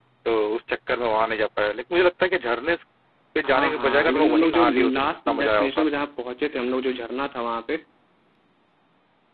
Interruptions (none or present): present